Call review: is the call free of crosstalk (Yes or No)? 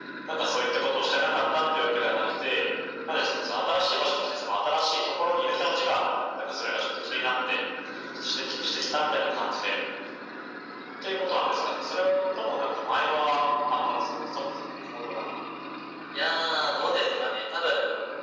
Yes